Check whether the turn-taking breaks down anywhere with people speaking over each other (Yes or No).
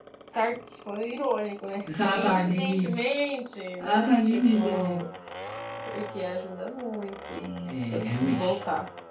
Yes